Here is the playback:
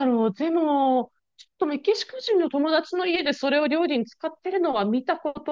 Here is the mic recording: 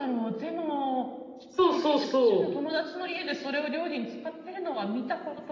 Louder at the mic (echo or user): user